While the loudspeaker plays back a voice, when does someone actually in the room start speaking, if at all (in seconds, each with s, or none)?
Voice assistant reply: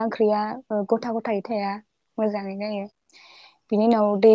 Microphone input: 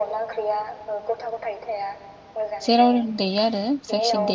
2.7 s